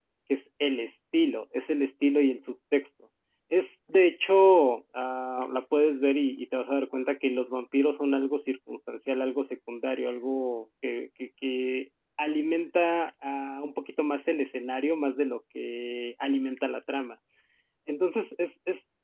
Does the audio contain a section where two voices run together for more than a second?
No

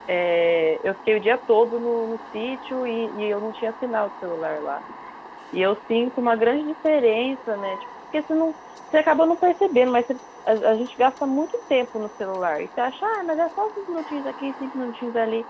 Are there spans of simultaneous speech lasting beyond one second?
No

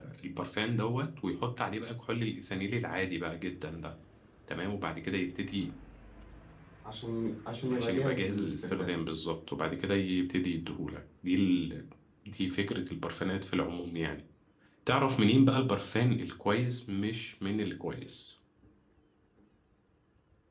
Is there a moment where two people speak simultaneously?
Yes, from 7.7 s

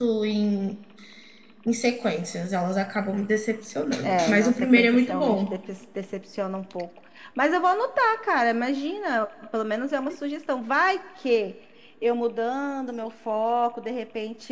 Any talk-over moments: Yes, from 4.0 s

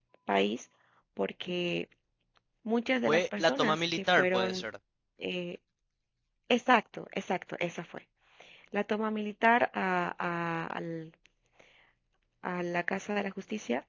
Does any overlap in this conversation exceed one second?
Yes, from 3.0 s

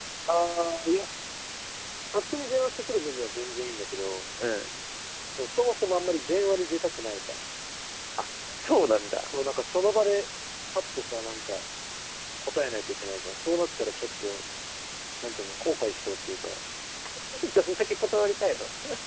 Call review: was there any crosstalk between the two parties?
No

